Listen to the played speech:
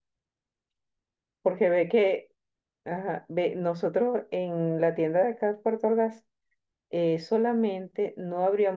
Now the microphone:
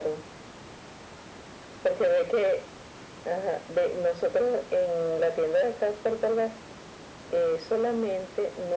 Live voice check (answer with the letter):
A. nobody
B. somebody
A